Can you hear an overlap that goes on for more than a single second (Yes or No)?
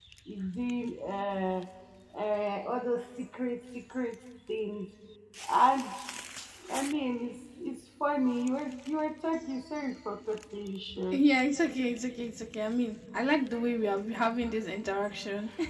No